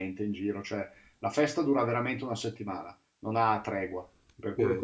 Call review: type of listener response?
taking over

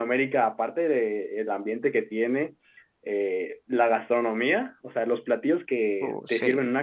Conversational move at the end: listening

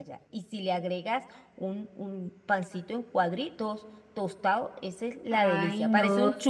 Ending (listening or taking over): taking over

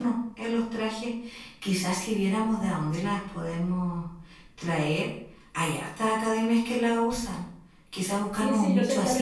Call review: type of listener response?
taking over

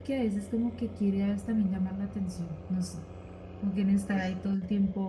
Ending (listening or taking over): listening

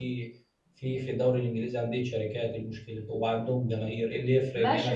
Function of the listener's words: taking over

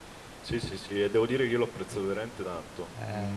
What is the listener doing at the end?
listening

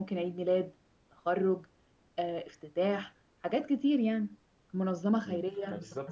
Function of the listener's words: taking over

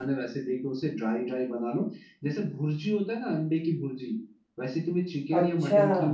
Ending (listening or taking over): listening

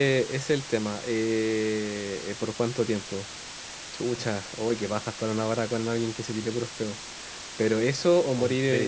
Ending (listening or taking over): listening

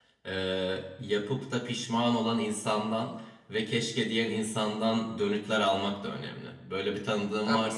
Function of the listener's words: taking over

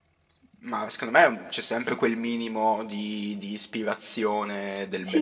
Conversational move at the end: taking over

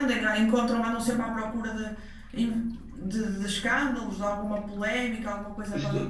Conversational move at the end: taking over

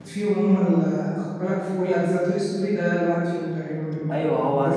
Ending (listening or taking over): taking over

